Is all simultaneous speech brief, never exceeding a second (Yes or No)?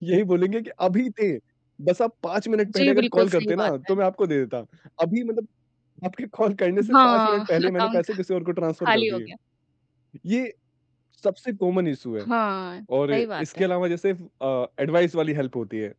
No